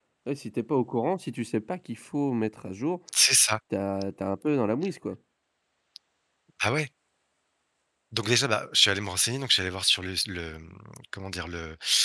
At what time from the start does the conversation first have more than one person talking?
none

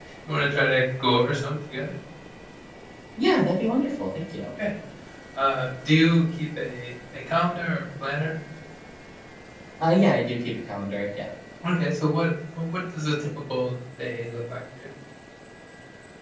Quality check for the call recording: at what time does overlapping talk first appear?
none

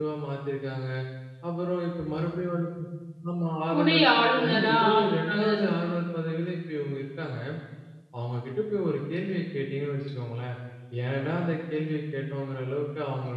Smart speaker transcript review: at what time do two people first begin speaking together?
3.7 s

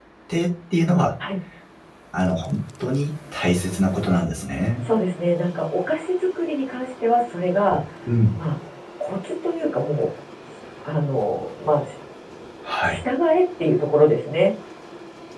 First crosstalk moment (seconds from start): none

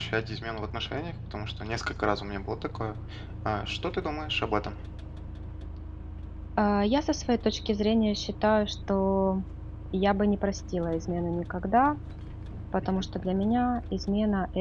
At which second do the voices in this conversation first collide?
none

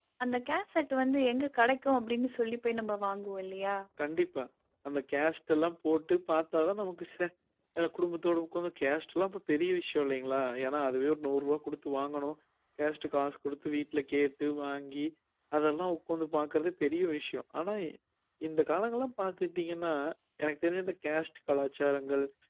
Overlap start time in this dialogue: none

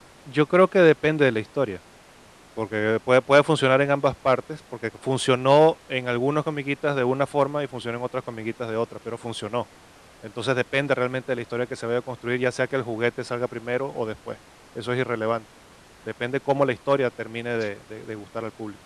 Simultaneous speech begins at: none

